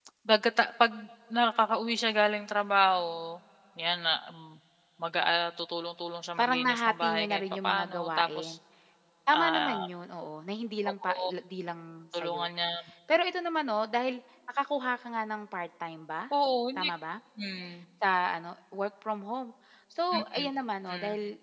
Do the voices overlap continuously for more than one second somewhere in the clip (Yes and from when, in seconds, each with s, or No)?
Yes, from 6.4 s